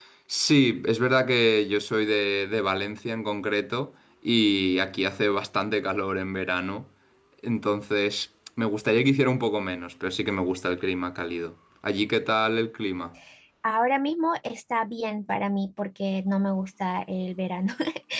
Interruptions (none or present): none